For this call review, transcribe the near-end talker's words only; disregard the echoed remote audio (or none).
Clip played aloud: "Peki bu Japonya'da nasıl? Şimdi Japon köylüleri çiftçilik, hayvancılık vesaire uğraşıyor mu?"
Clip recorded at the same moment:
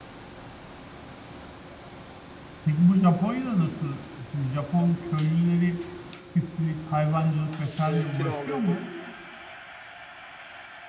E, kiralıyordur